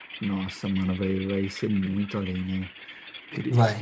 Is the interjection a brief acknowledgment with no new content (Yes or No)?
Yes